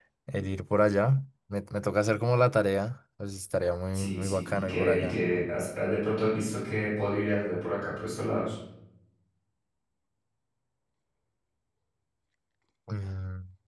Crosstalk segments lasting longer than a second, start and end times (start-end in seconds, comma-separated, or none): 3.9-5.2